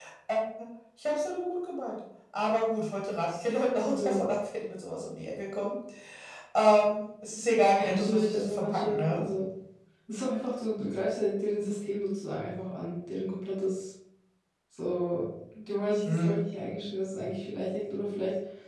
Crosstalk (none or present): present